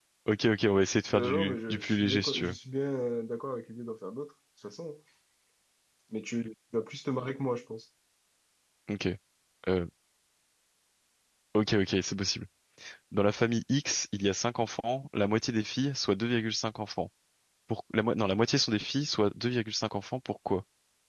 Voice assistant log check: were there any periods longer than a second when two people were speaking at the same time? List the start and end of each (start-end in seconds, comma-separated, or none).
1.1-2.6